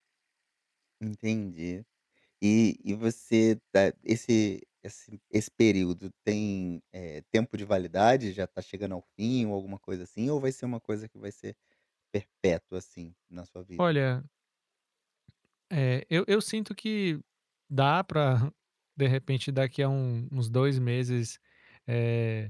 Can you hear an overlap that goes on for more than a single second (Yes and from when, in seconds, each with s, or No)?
No